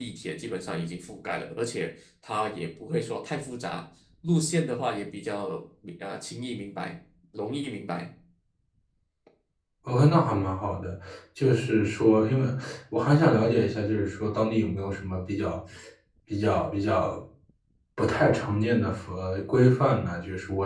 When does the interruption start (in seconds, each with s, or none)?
none